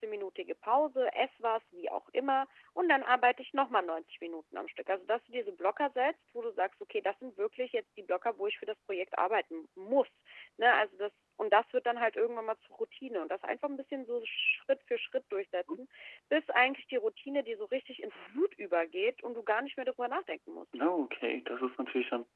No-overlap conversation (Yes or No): Yes